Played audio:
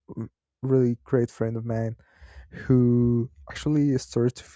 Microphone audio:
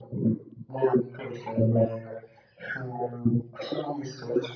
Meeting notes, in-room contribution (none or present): none